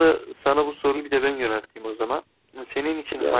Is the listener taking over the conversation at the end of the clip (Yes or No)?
No